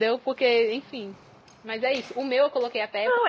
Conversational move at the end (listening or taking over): taking over